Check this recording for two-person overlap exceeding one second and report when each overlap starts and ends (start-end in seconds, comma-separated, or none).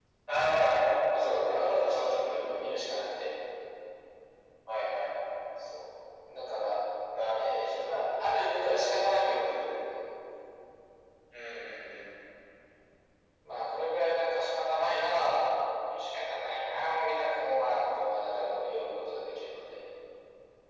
1.2-2.4